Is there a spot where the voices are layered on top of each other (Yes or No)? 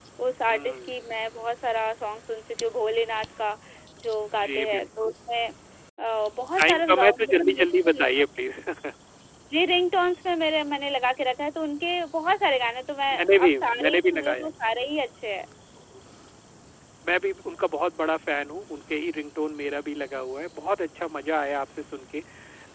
Yes